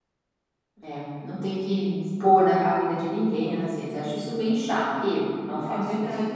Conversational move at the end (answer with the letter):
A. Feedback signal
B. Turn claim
B